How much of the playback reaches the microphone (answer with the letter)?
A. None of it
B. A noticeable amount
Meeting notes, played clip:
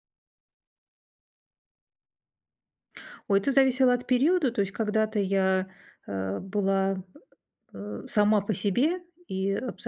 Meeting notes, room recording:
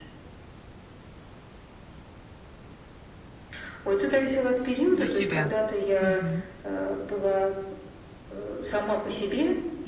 B